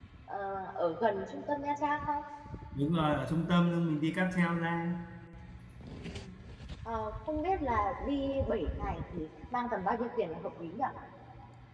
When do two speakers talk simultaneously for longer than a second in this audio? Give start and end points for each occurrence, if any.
none

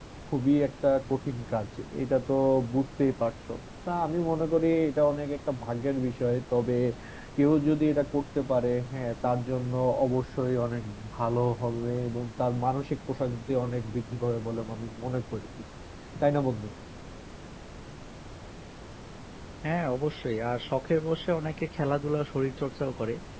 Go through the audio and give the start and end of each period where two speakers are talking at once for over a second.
none

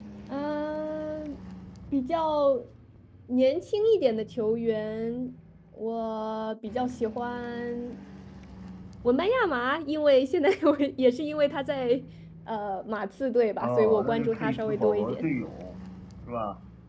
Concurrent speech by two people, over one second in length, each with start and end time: 13.6-15.3

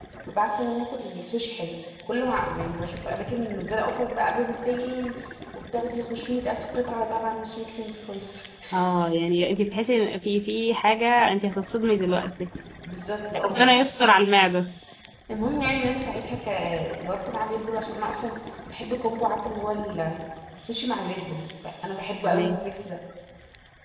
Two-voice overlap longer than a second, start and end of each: none

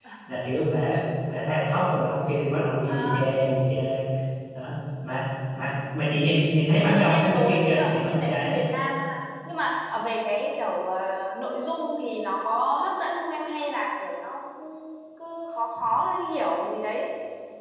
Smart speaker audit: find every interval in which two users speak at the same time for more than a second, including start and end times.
6.9-8.6

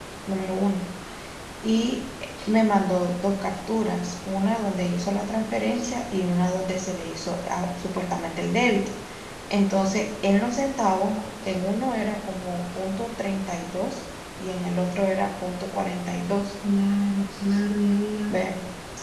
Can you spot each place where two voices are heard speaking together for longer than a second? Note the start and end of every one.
none

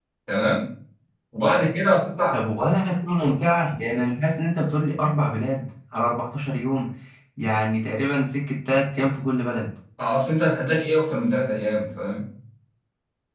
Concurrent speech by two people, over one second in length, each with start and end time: none

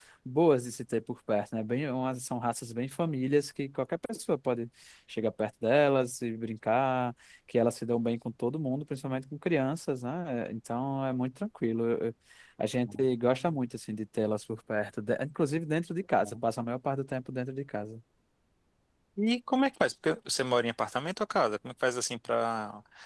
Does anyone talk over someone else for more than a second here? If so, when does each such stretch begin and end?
none

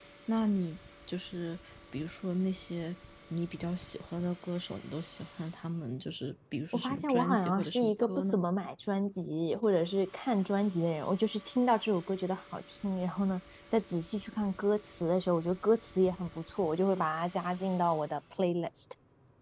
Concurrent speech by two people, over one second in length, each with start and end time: 6.7-8.4

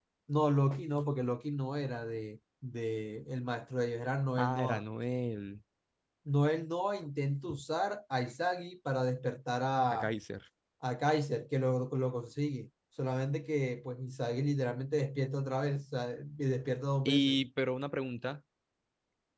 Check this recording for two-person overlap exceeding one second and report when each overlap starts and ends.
none

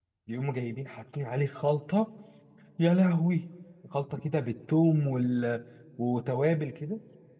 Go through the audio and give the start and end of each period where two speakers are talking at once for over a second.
none

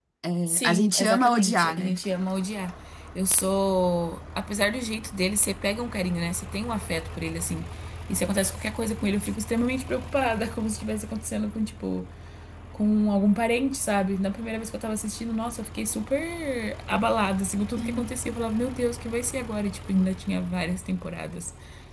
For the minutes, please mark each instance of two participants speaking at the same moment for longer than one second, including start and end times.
0.6-2.0

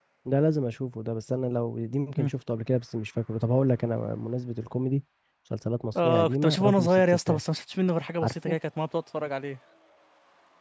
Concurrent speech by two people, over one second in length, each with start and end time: 6.0-7.4

